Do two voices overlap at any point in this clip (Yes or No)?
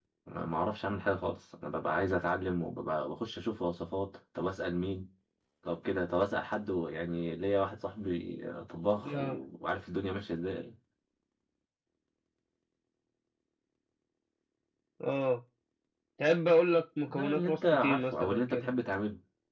Yes